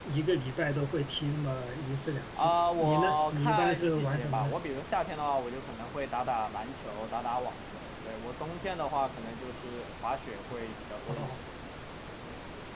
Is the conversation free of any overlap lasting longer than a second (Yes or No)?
No